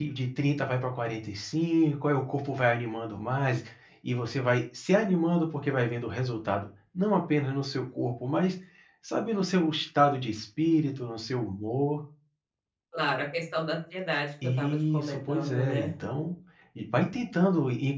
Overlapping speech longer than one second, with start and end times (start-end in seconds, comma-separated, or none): 14.6-15.9